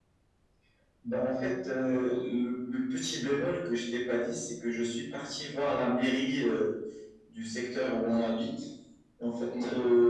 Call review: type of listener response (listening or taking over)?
listening